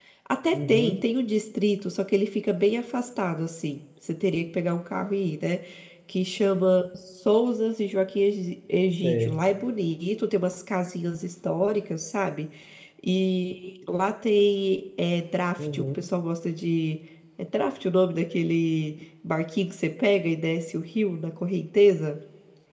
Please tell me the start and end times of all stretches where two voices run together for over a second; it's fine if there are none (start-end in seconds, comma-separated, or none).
none